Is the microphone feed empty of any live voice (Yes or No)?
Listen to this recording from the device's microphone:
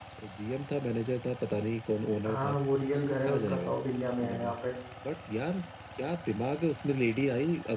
No